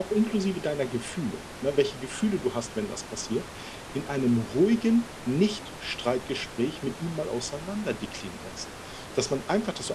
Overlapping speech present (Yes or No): No